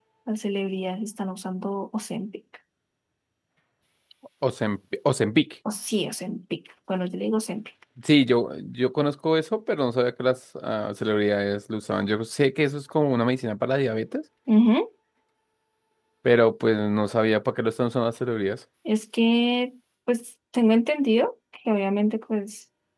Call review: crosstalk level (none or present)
none